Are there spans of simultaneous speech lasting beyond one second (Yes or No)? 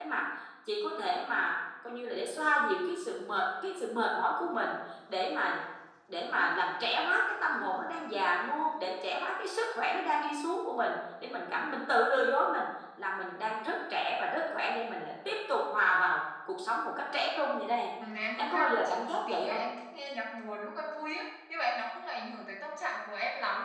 Yes